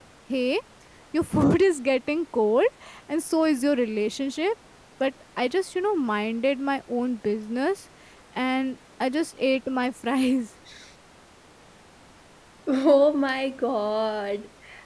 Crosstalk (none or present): none